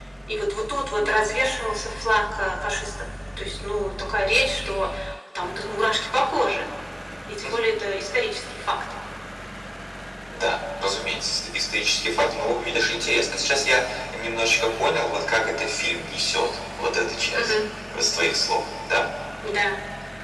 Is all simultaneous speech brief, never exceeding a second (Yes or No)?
Yes